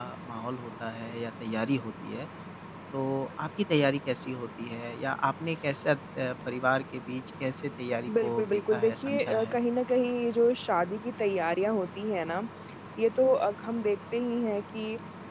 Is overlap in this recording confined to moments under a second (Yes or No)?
No